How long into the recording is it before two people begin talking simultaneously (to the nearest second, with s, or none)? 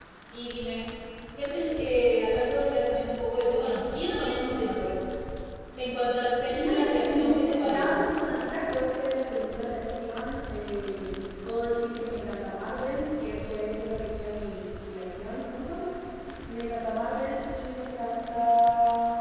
7 s